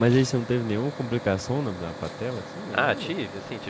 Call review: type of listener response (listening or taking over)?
taking over